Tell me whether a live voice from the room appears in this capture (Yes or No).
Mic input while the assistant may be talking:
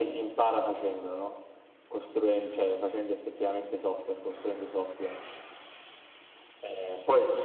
No